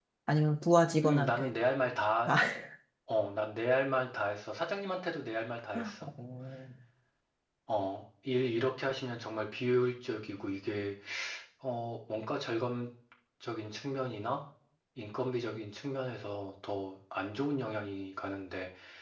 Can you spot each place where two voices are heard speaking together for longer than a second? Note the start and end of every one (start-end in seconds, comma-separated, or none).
none